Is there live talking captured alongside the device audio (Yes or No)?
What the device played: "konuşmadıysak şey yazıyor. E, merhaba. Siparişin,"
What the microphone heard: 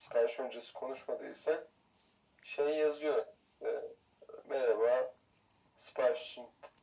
No